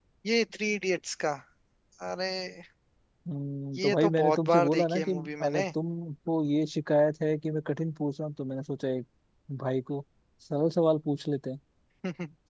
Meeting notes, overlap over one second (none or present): present